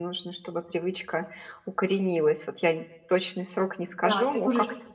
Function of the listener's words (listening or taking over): taking over